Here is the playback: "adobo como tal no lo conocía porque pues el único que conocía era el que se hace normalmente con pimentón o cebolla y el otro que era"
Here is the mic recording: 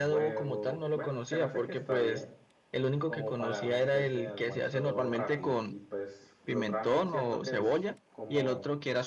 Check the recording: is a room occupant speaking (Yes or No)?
Yes